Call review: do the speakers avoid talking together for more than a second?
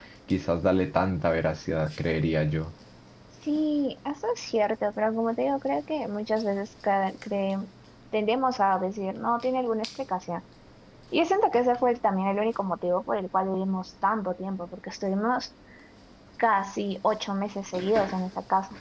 Yes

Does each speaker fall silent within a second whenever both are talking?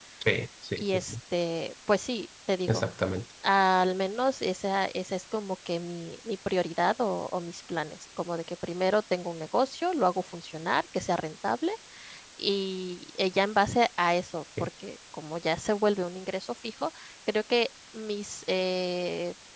Yes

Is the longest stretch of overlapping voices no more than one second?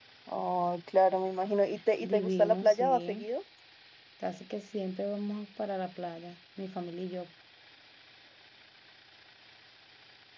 No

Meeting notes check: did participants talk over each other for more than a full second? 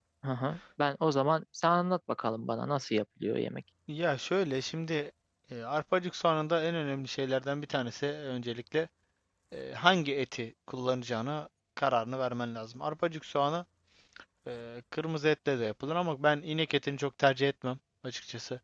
No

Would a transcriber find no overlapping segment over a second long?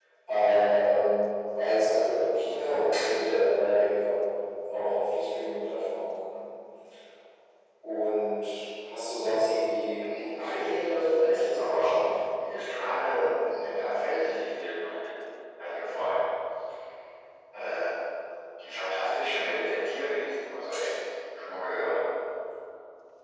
No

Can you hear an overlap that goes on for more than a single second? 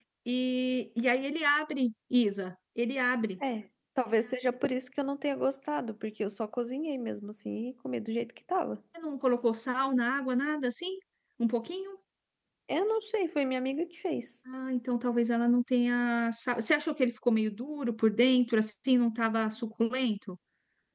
No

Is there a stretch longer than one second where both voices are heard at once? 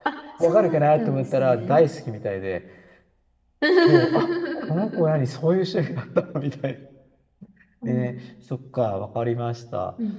Yes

